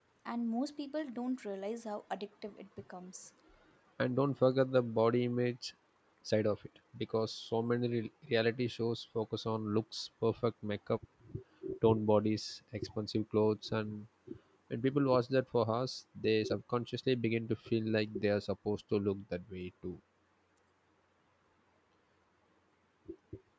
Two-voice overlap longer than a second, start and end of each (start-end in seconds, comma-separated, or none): none